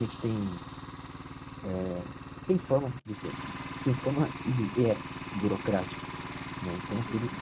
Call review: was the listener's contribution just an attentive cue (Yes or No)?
No